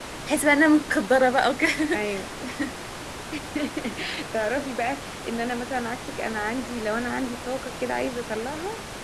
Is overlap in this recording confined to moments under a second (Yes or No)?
Yes